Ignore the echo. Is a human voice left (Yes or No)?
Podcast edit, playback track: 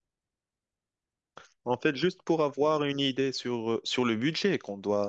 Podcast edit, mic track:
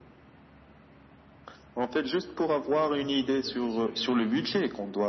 Yes